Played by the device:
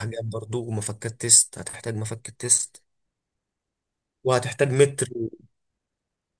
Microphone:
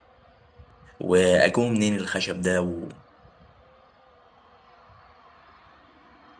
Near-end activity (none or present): present